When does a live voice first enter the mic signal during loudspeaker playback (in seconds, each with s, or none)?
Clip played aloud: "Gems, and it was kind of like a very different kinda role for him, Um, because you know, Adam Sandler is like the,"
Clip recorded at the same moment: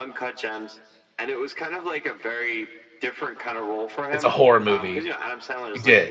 4.1 s